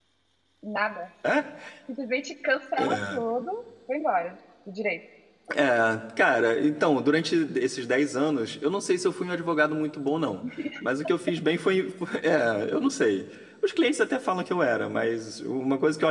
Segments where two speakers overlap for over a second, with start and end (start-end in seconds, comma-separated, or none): none